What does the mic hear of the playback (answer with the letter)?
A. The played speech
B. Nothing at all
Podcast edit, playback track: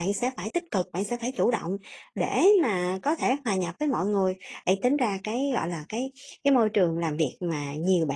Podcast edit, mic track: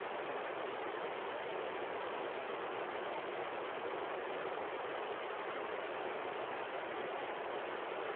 B